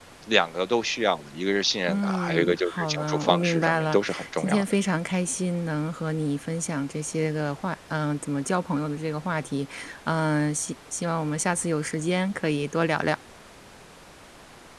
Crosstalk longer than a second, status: present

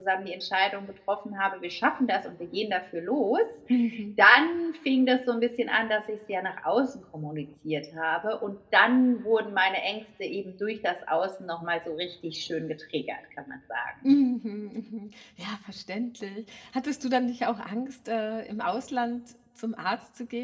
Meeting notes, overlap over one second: none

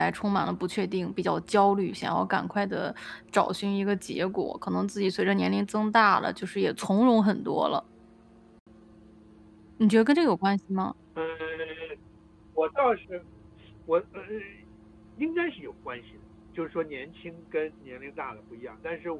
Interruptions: none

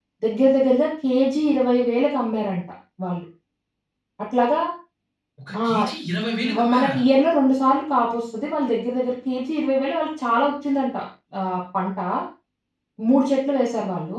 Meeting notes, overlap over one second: none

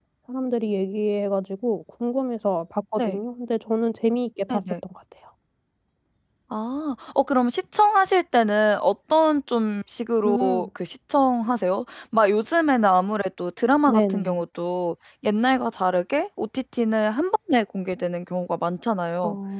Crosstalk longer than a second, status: none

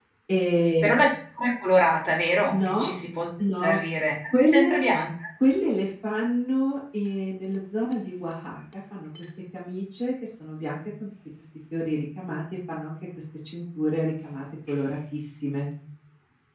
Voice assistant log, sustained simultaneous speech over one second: none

